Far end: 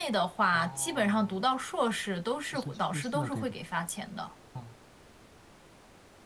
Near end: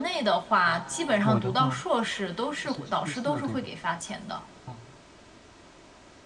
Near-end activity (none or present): present